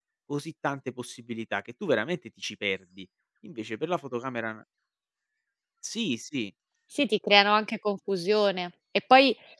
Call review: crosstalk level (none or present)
none